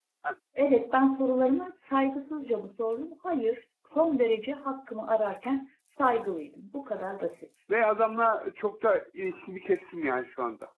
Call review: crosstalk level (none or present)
none